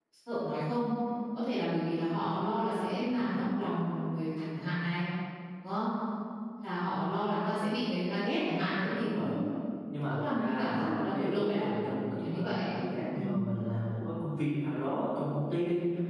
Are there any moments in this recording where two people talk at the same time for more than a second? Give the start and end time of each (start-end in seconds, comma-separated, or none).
10.1-11.6